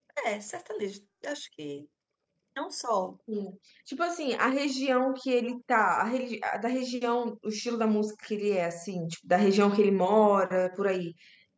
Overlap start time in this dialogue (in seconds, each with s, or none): none